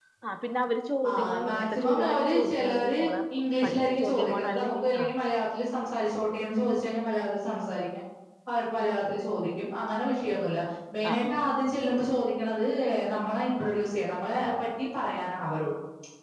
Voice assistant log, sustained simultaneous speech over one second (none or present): present